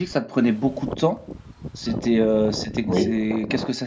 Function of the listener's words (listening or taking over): listening